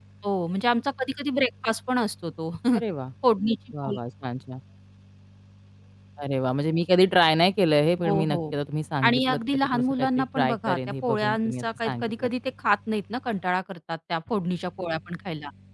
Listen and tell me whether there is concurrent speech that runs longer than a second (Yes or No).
Yes